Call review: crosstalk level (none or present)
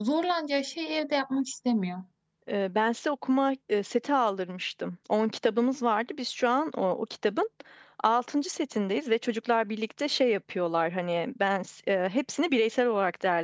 none